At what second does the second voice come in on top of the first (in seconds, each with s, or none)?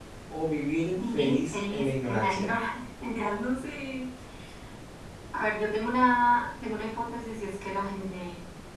0.9 s